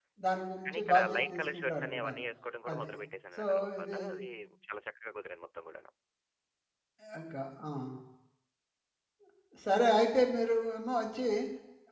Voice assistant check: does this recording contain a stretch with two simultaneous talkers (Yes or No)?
Yes